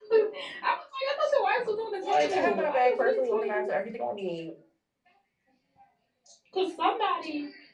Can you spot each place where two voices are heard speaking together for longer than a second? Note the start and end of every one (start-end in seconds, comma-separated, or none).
2.0-3.7